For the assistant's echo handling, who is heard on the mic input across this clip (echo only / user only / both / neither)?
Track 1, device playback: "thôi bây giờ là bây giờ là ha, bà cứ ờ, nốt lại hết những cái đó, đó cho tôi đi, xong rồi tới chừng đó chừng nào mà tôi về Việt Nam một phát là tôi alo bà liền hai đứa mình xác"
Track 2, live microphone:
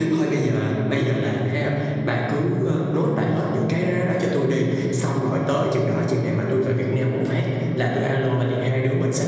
echo only